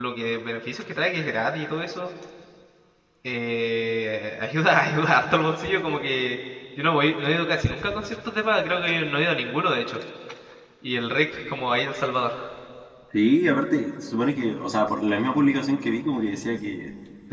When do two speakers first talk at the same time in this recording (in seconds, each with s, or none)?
none